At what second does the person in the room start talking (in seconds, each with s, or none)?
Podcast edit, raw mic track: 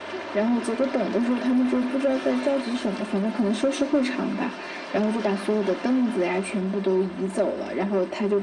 none